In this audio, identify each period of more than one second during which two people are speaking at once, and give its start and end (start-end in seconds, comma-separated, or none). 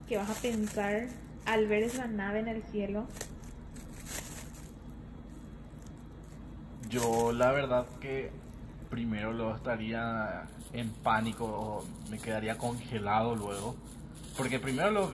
none